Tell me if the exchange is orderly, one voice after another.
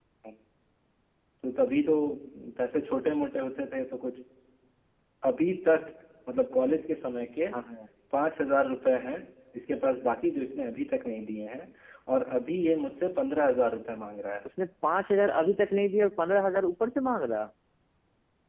Yes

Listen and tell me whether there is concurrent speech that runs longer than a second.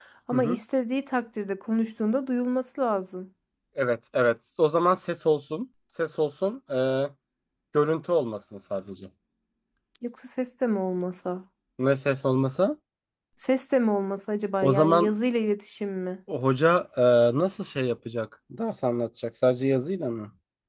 No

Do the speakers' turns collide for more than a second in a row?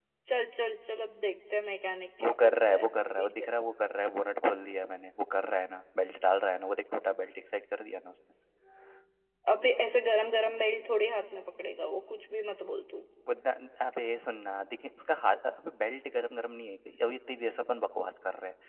Yes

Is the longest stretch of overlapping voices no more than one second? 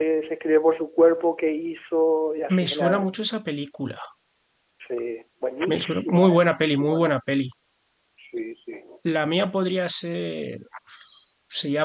No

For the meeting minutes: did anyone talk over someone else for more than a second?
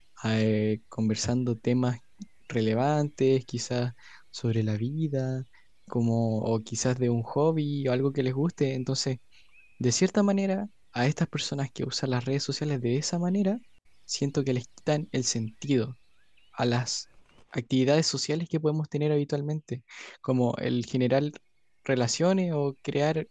No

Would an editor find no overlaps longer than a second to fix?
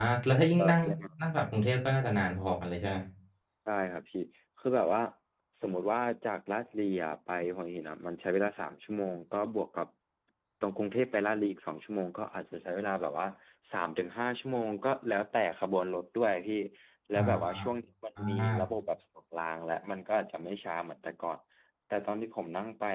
Yes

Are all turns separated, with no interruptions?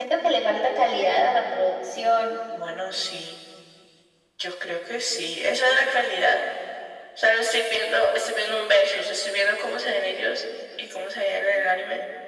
Yes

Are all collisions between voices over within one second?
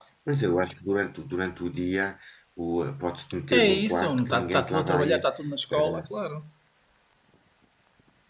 No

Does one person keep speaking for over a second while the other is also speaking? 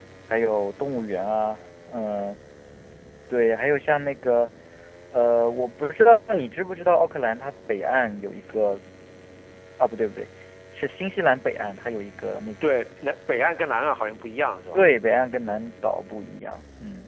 No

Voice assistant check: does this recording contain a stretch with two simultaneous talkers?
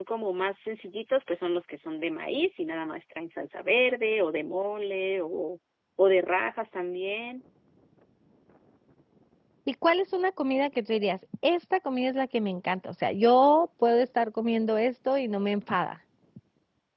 No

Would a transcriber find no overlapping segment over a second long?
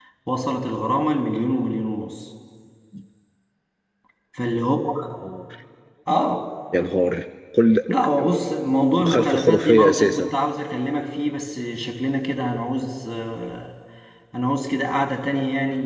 No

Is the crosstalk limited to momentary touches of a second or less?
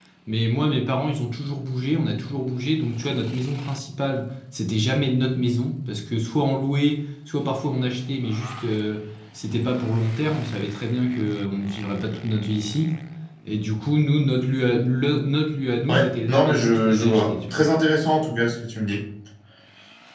No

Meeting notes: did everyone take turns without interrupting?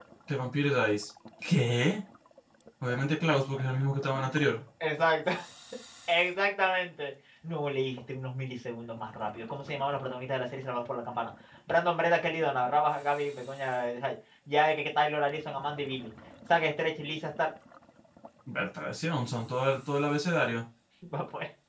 Yes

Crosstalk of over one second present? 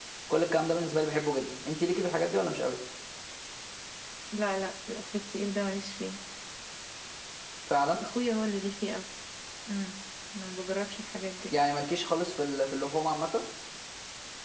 No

